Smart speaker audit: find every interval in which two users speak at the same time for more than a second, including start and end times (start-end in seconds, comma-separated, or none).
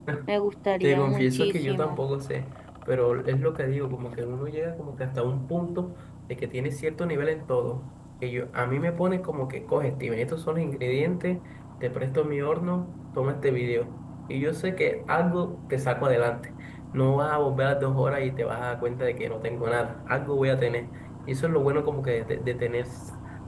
0.8-2.0